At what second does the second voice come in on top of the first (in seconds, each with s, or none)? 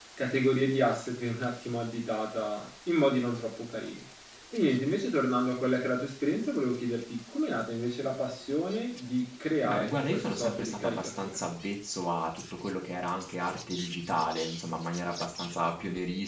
9.6 s